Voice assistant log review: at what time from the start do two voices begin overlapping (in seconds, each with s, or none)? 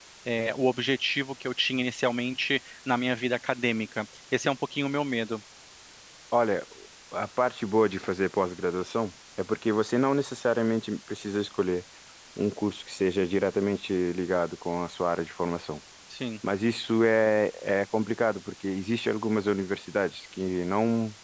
none